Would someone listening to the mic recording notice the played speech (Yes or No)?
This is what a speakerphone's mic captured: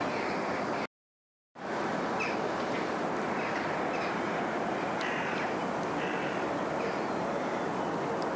No